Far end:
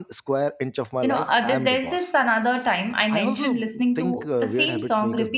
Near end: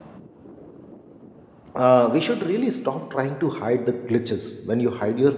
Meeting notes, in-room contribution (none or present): present